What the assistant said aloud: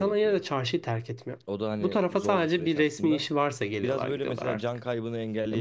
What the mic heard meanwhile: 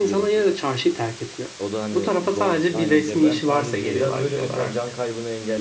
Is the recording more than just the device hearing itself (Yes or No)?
Yes